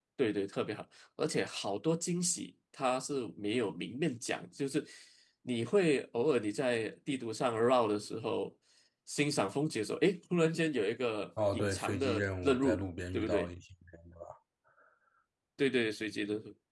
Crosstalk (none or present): present